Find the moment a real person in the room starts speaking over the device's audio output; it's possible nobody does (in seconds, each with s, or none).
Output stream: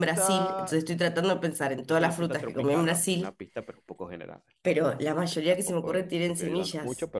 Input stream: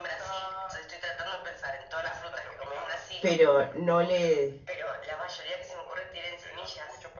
3.2 s